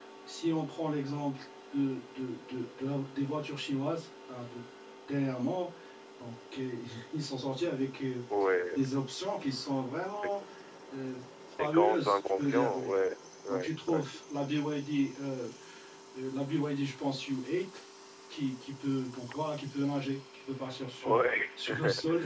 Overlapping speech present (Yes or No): Yes